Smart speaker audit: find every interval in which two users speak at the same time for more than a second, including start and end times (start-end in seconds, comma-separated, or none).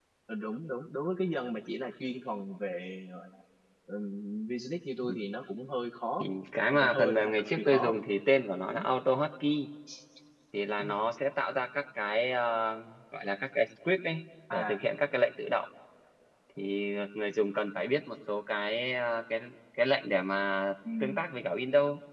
6.7-8.0